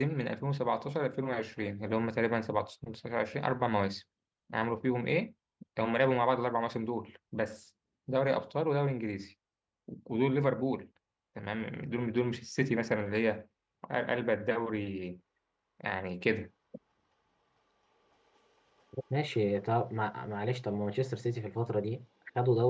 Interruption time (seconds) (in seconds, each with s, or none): none